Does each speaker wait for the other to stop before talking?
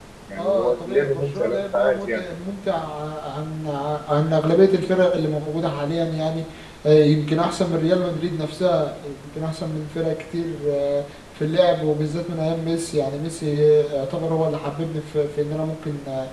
No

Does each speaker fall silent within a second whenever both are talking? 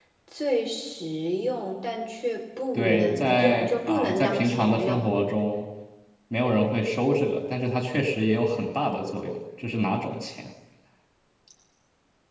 No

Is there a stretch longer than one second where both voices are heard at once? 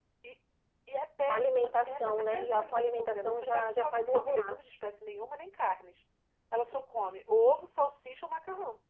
Yes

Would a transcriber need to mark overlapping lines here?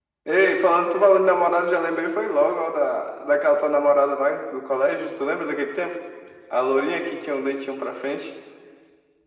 No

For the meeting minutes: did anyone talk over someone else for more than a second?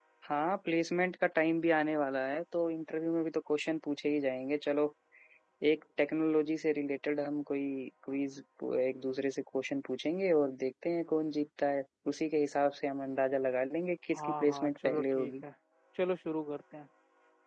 Yes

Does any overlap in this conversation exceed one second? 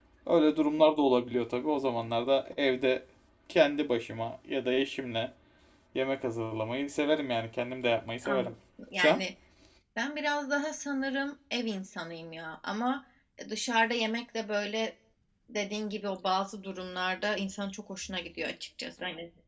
No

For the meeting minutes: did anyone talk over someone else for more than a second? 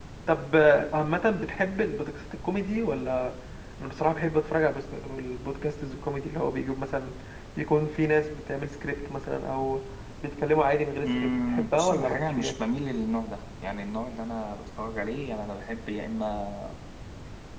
Yes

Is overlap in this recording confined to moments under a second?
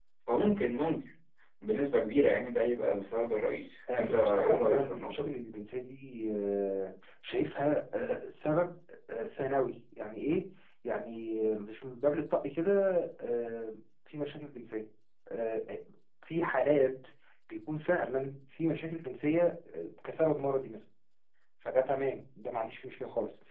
No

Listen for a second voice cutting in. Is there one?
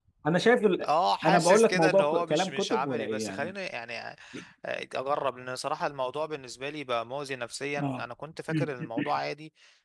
Yes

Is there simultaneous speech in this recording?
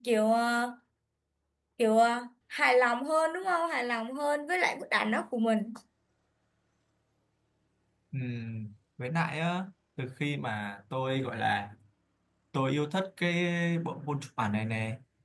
No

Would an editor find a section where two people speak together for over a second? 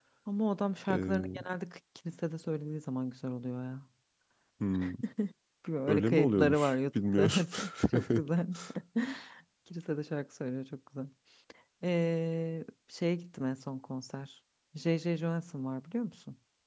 Yes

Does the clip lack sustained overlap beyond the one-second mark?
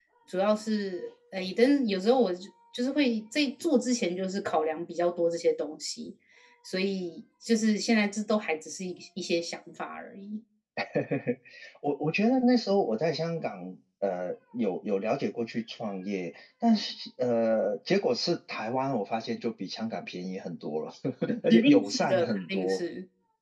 No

